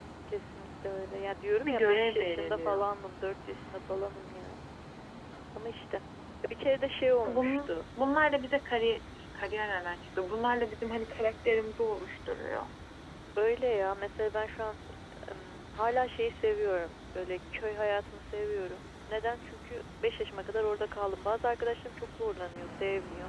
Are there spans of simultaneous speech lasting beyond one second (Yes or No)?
Yes